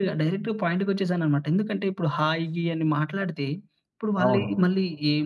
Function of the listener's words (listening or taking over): listening